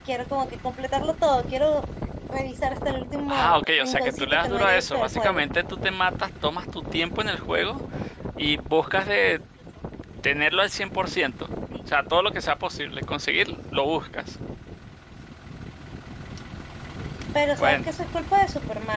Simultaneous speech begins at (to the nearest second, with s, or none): 3 s